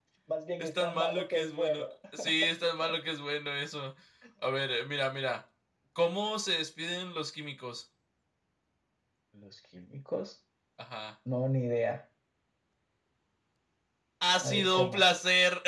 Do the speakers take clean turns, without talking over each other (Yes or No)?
No